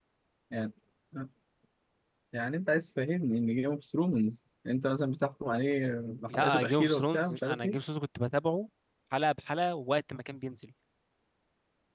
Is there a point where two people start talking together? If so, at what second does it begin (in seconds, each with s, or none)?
6.3 s